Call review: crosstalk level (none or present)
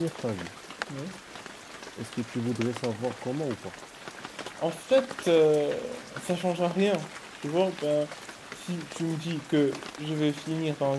none